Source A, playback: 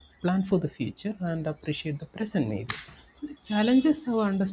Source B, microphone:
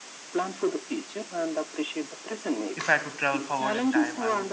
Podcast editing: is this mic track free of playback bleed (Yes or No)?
No